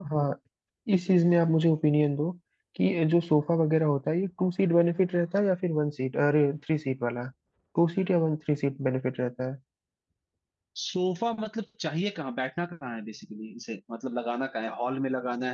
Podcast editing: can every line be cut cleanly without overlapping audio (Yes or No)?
Yes